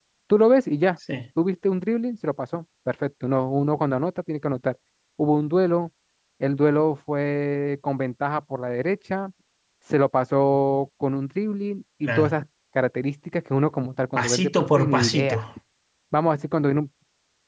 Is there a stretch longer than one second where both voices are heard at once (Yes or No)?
Yes